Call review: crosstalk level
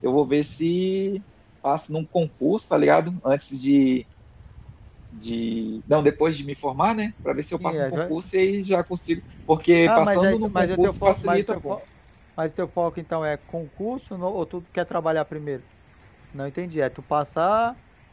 present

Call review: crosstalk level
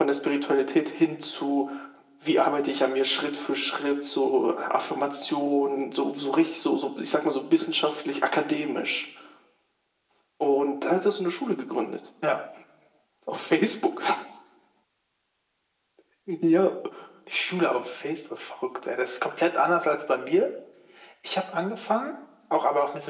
none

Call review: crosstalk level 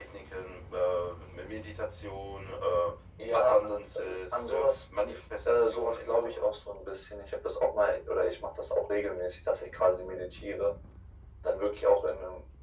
present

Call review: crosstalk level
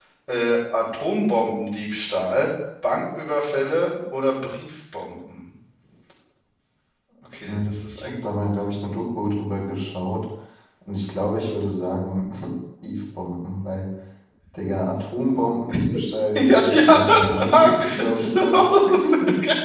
present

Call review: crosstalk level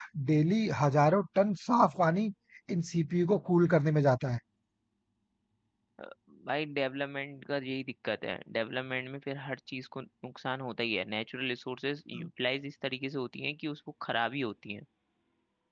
none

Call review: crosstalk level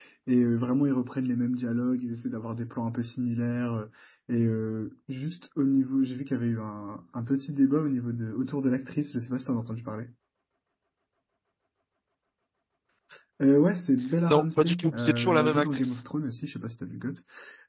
present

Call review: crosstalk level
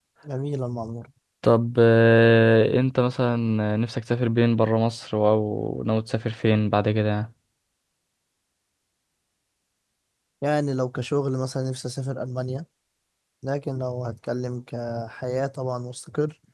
none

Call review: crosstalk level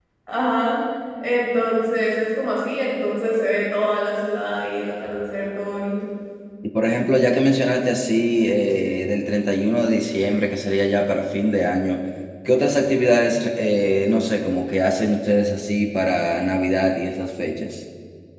none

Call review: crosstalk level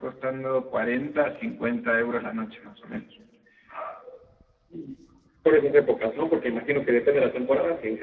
none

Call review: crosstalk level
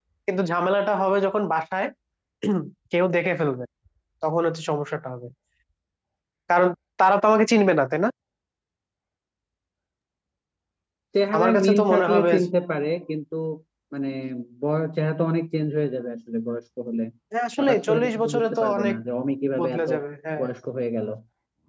present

